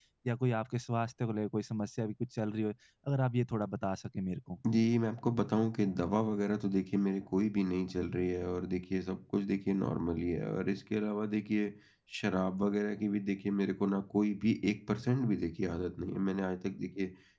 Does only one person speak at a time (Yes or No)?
Yes